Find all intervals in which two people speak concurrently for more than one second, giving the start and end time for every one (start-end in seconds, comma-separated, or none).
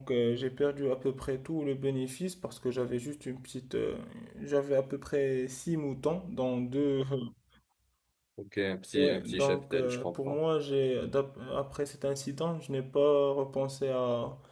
9.0-10.4